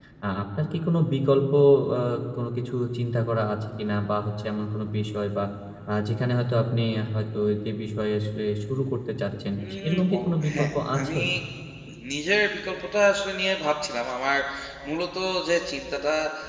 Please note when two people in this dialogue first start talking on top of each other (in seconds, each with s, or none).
9.9 s